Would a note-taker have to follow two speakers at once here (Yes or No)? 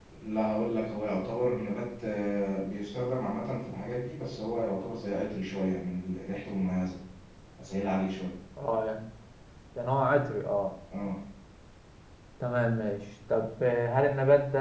No